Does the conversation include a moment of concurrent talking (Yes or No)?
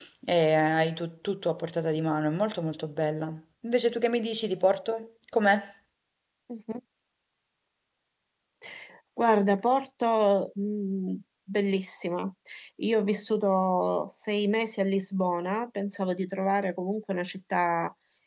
No